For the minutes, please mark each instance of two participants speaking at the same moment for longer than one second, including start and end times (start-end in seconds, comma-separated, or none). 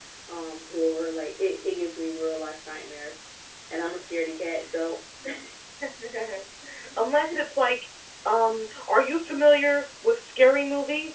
none